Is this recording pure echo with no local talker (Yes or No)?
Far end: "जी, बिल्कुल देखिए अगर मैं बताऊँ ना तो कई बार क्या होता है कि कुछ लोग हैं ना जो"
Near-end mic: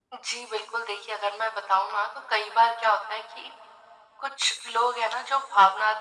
Yes